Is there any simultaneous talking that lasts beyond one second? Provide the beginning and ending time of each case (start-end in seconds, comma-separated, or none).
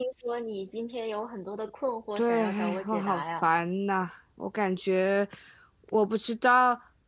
2.2-3.5